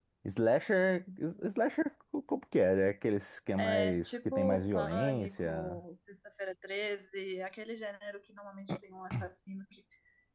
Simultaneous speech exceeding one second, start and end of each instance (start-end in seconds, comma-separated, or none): 3.6-5.8